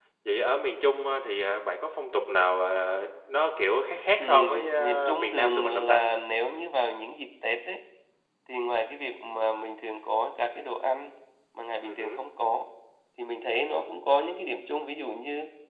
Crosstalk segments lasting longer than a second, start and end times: 4.2-6.0

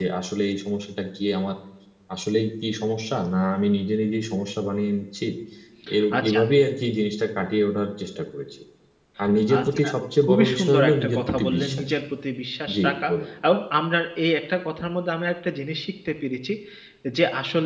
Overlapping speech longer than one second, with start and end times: 10.2-12.0

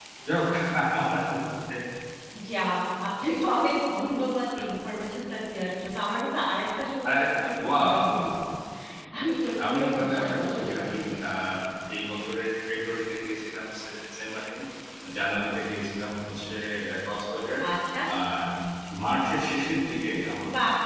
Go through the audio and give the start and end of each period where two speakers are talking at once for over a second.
9.6-11.0

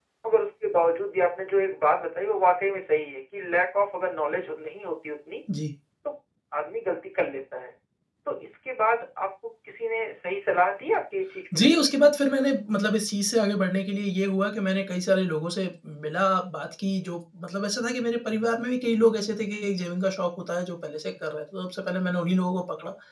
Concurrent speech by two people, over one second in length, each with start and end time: none

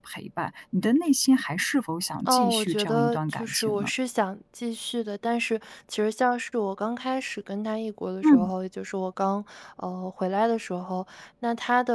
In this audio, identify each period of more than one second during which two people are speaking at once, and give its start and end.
2.2-3.9

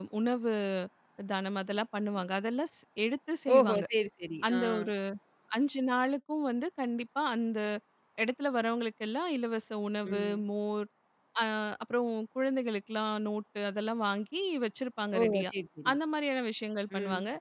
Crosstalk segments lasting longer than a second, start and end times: none

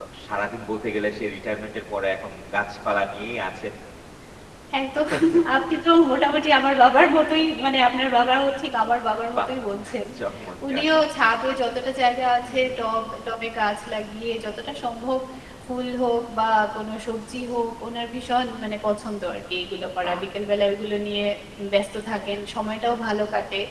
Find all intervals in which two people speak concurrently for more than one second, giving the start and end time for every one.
none

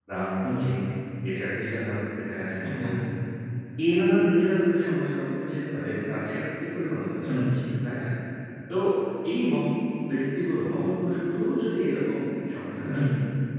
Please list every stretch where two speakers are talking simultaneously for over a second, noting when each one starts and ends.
none

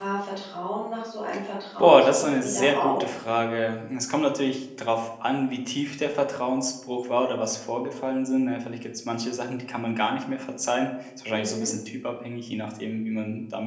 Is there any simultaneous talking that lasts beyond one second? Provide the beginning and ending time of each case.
1.8-3.0

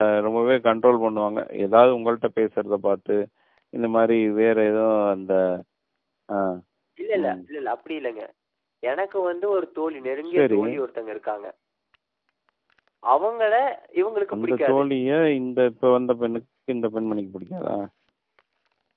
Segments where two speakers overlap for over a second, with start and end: none

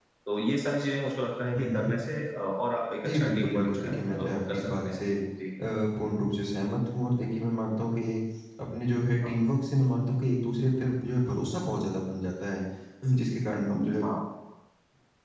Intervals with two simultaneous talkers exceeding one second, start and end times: 3.1-5.0

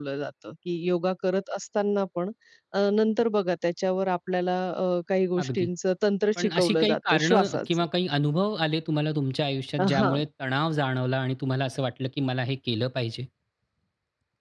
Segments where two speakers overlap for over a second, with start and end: 6.4-7.8

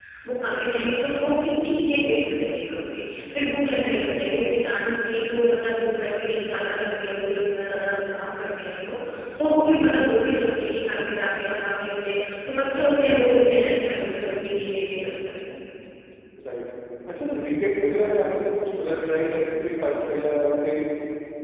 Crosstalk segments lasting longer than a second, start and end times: none

